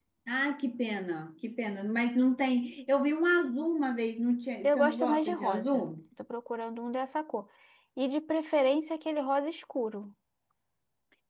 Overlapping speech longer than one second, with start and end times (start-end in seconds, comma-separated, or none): 4.6-5.8